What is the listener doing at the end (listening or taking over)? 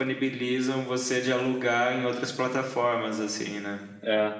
listening